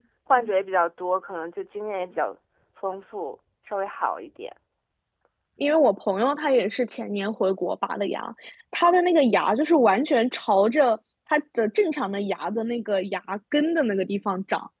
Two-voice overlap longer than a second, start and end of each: none

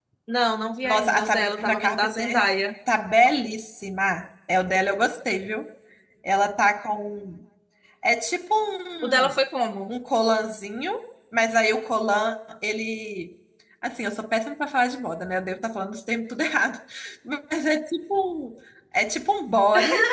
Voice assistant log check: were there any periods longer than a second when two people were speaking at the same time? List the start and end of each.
0.8-2.5

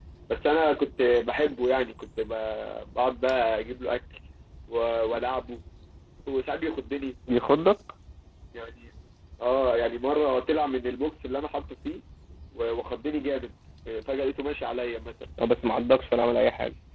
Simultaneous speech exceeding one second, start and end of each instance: none

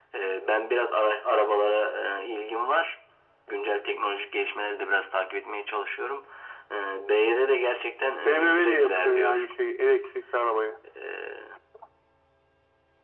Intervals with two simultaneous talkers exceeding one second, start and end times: 8.2-9.4

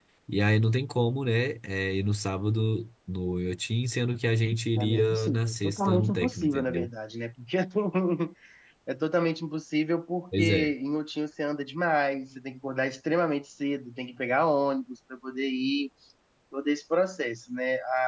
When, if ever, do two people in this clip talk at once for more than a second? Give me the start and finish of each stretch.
4.8-6.9

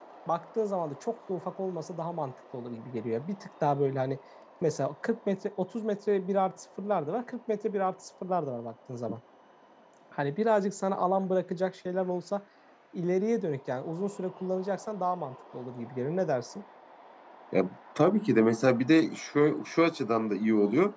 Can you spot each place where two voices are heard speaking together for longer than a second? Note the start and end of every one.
none

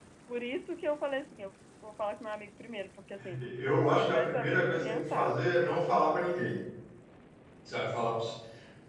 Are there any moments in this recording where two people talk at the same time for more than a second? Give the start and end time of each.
3.9-5.4

